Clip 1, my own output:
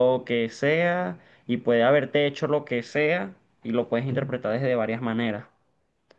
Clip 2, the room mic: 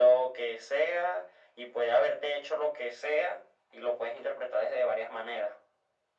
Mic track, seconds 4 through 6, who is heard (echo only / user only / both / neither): echo only